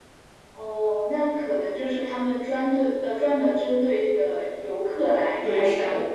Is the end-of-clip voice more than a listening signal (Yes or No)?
Yes